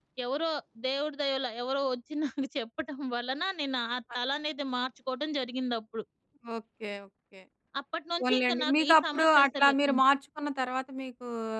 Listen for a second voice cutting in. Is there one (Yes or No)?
Yes